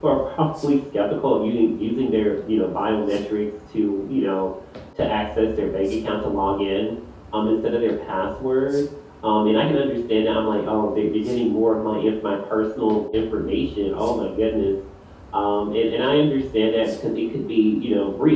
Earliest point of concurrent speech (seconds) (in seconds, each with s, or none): none